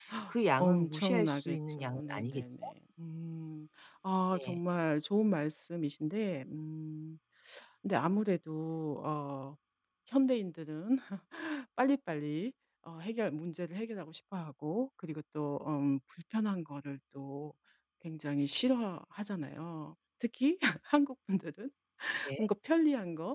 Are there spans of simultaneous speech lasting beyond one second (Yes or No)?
Yes